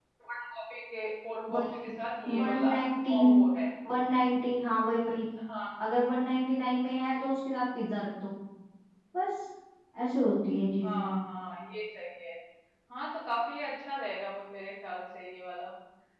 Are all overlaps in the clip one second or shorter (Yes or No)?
Yes